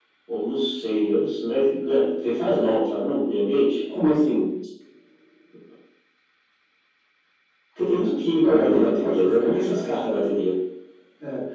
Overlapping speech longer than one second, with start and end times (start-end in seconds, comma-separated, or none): 8.4-10.1